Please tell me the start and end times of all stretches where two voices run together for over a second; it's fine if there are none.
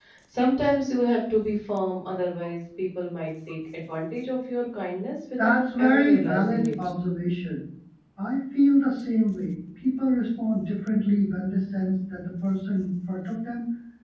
5.4-6.7

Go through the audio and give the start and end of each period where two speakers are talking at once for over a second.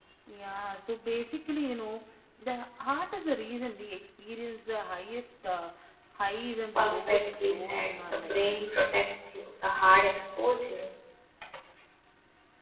6.8-8.4

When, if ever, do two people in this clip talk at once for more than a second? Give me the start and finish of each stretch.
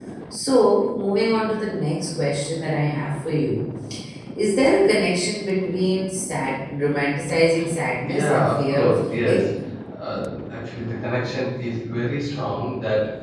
8.1-9.5

